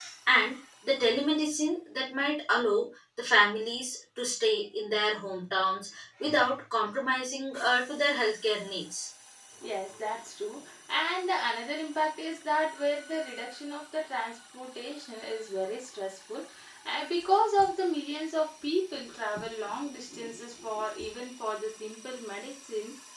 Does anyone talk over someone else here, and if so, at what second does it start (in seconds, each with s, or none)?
none